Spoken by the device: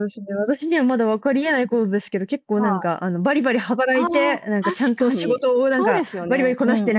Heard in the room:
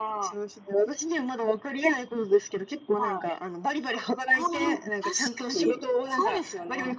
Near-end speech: none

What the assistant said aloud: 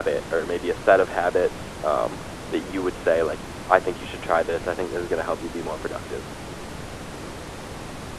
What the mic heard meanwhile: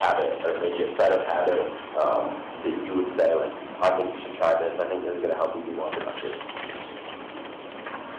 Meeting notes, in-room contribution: none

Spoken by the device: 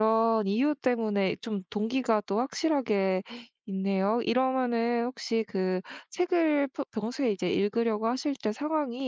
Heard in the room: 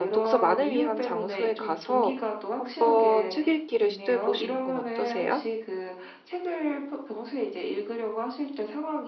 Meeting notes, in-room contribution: present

